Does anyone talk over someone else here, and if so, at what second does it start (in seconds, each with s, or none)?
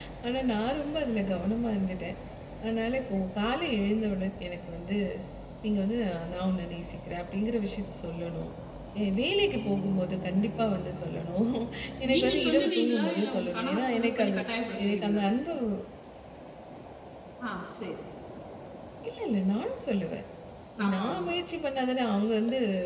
12.1 s